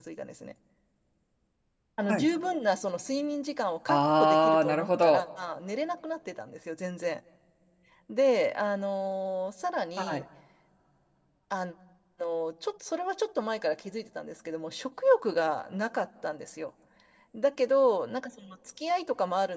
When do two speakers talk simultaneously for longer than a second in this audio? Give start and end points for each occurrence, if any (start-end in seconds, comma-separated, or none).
3.9-5.2